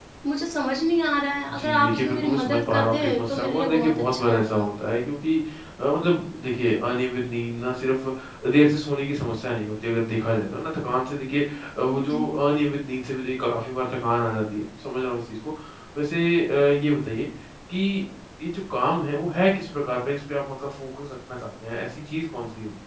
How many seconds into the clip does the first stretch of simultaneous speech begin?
1.5 s

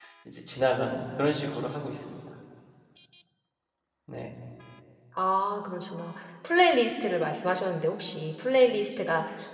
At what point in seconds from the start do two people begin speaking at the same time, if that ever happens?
none

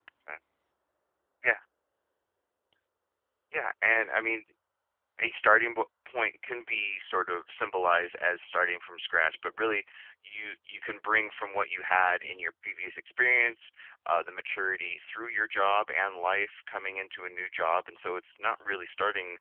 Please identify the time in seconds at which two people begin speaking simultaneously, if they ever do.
none

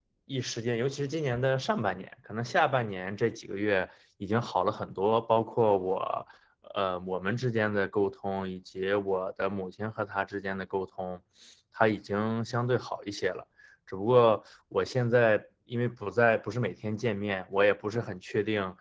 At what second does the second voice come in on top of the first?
none

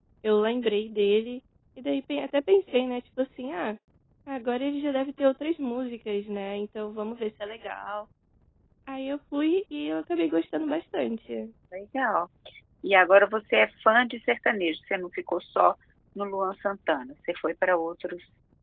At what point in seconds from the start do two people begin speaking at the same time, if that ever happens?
none

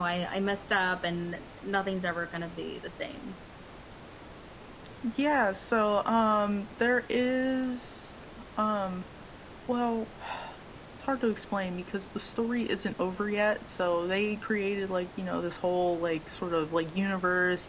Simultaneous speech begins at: none

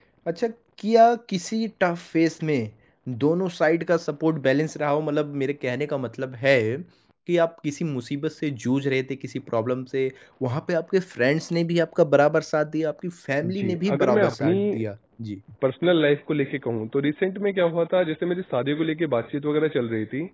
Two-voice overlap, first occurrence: 13.4 s

